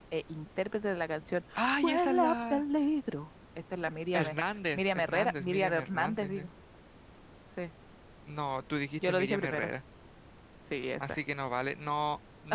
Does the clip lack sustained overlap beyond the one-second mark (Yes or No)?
No